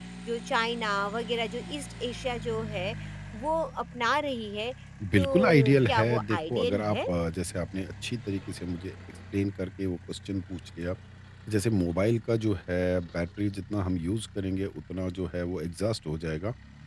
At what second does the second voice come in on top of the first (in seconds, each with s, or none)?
5.2 s